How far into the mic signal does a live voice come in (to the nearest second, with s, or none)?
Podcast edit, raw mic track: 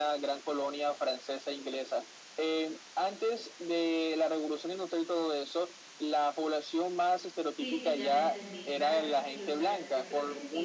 8 s